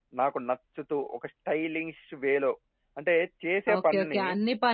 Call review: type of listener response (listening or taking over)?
taking over